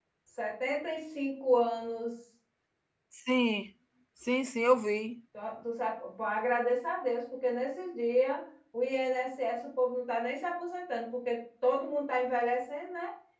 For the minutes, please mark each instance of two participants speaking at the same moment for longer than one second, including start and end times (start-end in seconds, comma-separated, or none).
none